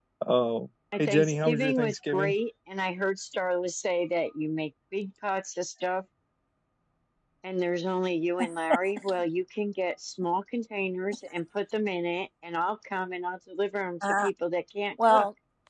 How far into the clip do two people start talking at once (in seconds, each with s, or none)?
1.0 s